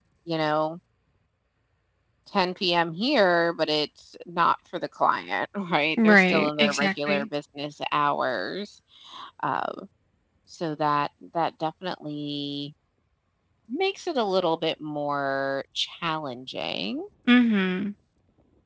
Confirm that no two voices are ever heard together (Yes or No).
No